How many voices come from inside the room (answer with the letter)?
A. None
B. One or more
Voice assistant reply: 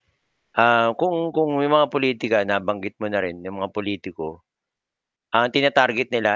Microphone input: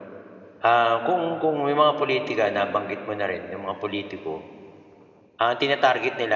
A